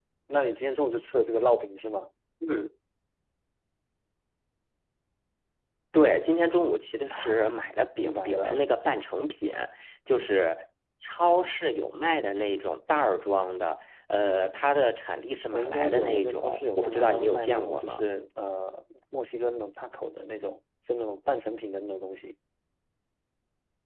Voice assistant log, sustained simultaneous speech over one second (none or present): present